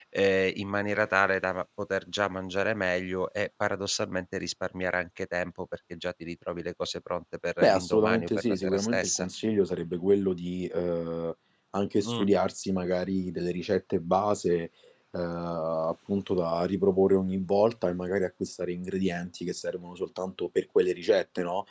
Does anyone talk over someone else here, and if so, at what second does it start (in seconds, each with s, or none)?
7.6 s